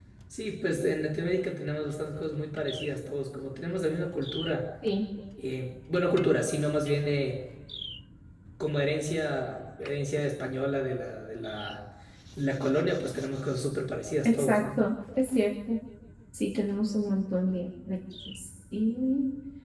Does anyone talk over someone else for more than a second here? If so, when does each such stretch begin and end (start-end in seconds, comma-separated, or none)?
none